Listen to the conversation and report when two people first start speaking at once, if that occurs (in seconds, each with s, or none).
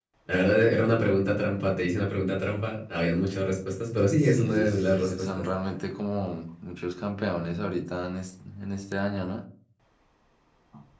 4.2 s